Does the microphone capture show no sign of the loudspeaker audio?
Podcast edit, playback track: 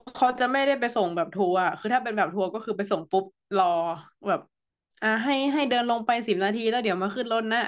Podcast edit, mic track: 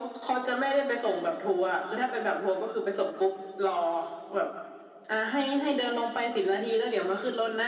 No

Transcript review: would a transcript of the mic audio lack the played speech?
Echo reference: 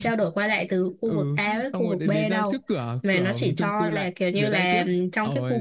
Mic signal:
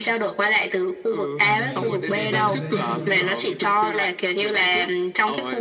No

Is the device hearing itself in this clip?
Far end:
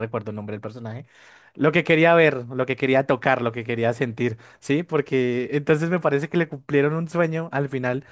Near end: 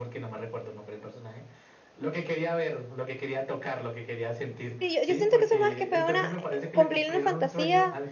Yes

